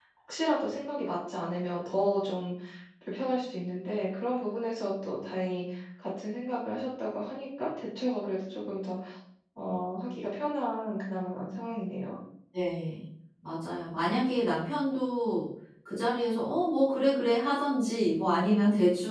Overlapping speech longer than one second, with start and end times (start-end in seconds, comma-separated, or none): none